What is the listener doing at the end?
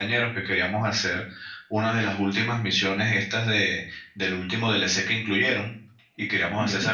listening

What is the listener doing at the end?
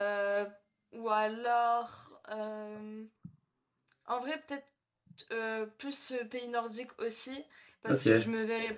listening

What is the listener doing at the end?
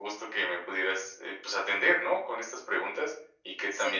listening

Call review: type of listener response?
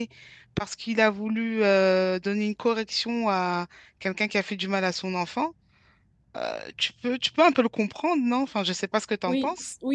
taking over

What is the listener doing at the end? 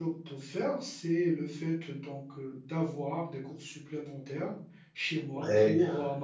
listening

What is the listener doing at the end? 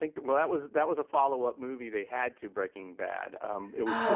listening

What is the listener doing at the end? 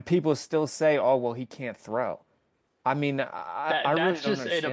taking over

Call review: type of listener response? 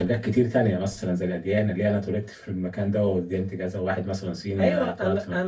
taking over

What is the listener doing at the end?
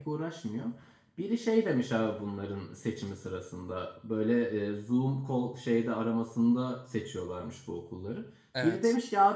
listening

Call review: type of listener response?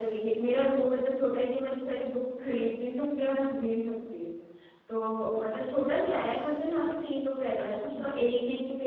listening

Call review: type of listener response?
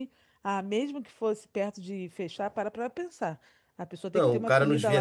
taking over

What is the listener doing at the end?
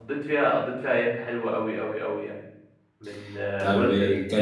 taking over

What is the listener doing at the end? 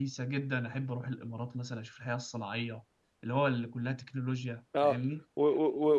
taking over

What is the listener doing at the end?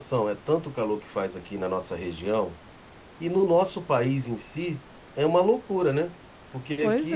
listening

